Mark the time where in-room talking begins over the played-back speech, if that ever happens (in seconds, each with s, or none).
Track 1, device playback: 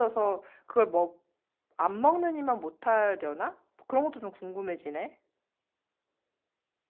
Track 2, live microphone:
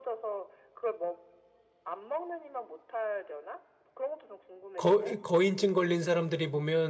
4.8 s